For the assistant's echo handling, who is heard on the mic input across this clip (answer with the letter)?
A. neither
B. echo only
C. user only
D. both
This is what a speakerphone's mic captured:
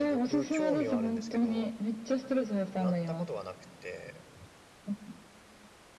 D